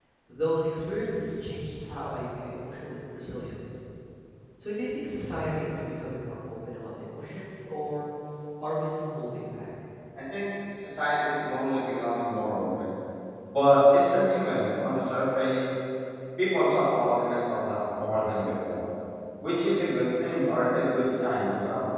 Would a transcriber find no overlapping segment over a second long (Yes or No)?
Yes